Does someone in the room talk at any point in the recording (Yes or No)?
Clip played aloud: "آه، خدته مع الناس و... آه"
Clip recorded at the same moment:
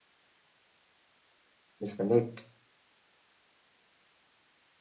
Yes